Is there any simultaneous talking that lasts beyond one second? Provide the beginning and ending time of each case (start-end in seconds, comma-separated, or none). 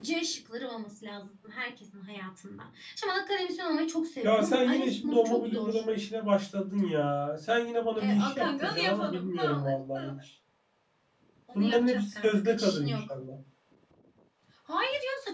4.2-5.8, 8.0-10.1, 11.5-13.0